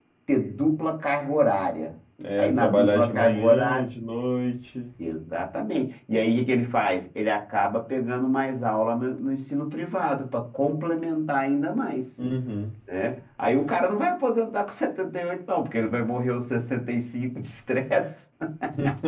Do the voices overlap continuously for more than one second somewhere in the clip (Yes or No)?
Yes